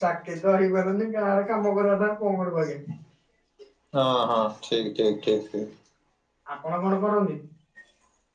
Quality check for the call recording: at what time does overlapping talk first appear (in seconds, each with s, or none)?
none